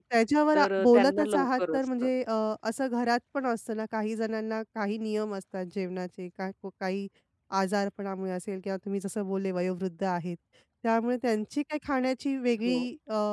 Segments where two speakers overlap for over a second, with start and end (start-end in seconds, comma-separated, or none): 0.5-2.1